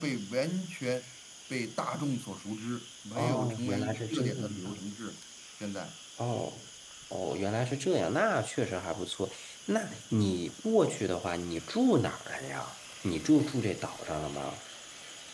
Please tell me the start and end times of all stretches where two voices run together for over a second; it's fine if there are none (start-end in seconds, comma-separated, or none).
3.1-4.7